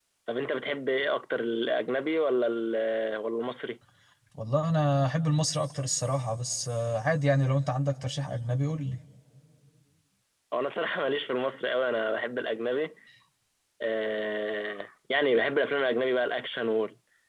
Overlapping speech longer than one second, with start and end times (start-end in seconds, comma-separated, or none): none